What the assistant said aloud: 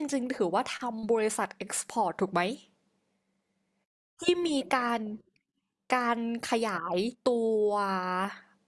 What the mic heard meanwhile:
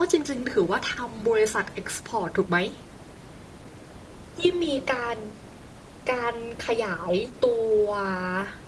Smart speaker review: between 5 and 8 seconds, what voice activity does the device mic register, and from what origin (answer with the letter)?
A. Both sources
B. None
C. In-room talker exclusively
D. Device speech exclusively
D